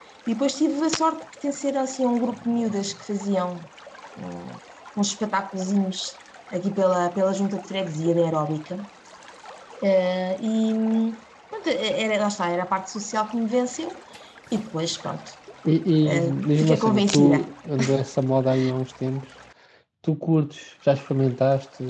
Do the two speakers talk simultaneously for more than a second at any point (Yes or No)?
Yes